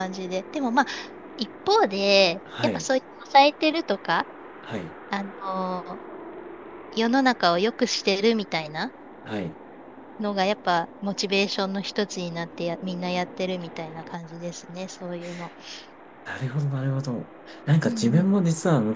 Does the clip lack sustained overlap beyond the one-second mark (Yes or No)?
Yes